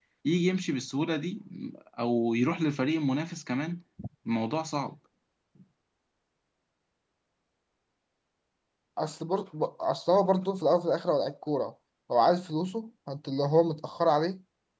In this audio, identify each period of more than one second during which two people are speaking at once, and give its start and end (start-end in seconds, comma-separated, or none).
none